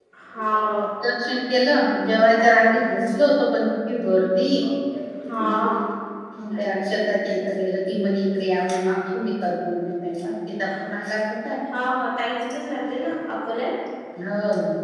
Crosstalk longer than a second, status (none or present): none